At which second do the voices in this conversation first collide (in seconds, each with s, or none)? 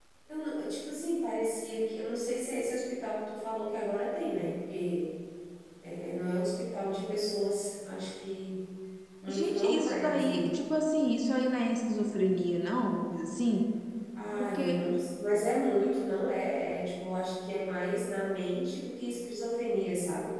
9.3 s